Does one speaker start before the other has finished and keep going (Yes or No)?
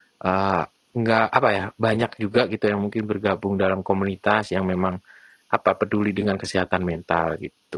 No